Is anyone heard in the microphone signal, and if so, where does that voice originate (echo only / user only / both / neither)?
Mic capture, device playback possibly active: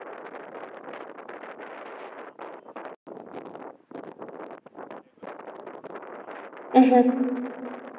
user only